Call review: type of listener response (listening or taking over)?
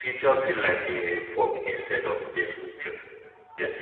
taking over